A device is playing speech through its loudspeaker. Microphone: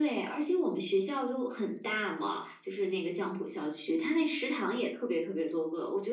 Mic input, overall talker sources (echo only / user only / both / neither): echo only